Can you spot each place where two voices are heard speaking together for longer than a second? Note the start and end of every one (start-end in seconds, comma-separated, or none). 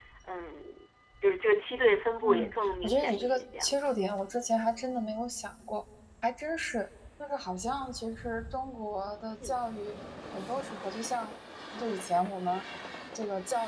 2.2-3.8